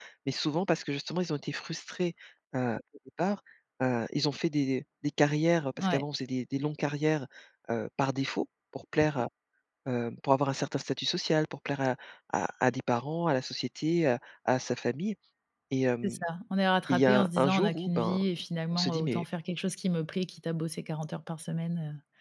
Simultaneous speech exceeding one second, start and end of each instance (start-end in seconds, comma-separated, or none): 16.9-18.2